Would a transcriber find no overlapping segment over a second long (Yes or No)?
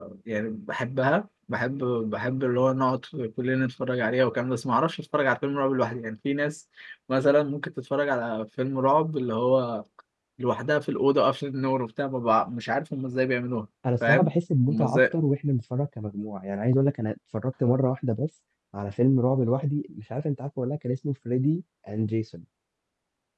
Yes